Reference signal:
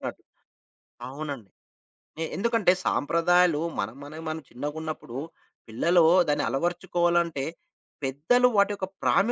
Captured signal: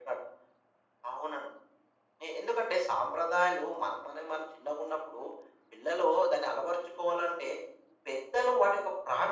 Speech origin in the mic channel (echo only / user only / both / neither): echo only